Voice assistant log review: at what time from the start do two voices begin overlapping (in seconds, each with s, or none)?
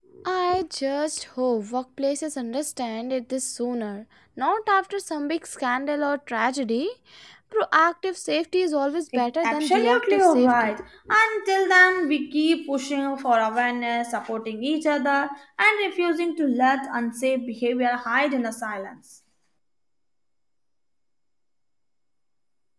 9.4 s